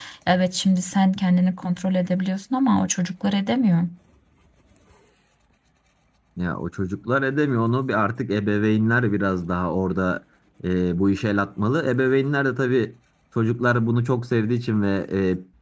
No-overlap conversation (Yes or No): Yes